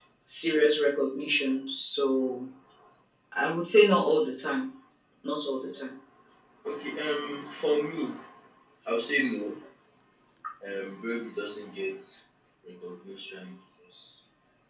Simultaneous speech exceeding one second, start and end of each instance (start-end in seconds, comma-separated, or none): none